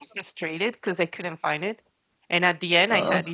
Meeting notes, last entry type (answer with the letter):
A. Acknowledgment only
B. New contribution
A